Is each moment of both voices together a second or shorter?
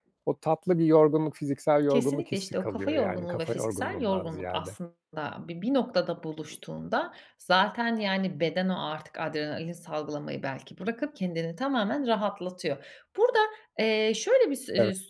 No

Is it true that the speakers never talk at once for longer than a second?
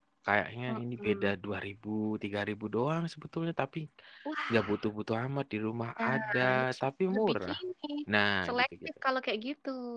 No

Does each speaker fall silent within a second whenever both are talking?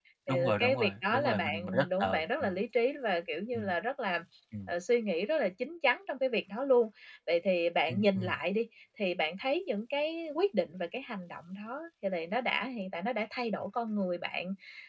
No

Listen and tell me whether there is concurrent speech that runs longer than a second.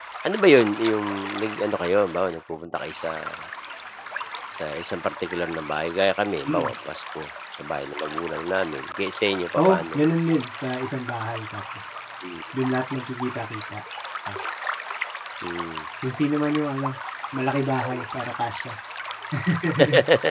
No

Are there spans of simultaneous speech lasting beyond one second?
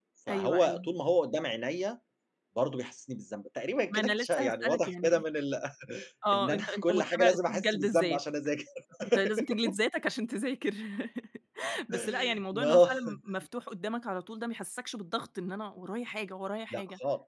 Yes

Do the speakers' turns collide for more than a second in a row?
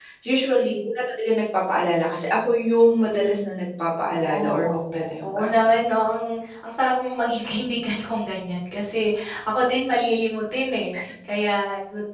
Yes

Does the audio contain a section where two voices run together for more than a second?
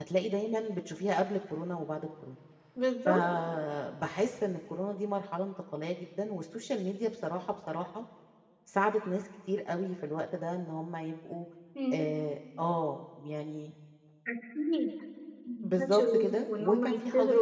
Yes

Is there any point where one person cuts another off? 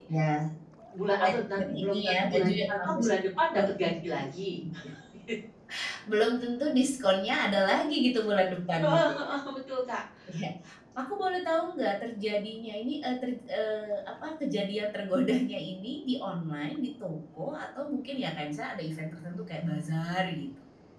Yes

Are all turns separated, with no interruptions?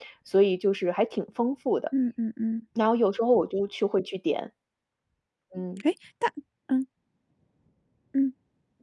Yes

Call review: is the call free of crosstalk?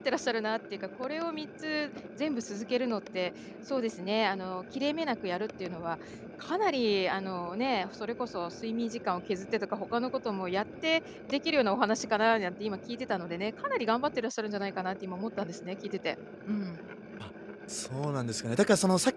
Yes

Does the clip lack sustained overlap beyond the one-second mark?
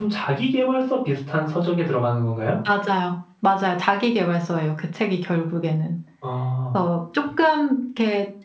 Yes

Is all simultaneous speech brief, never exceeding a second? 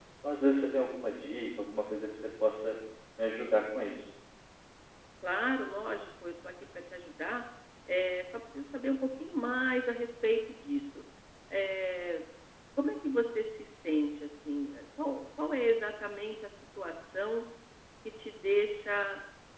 Yes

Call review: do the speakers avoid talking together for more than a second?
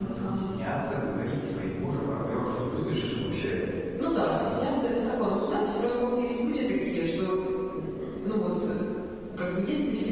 Yes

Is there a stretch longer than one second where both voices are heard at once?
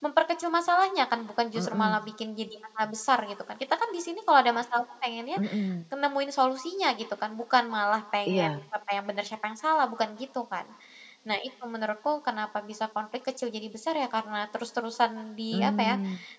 No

